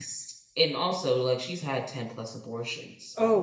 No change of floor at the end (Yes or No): No